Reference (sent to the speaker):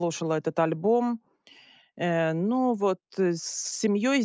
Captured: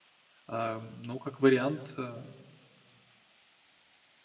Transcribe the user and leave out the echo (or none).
ам, ну, как вариант, э,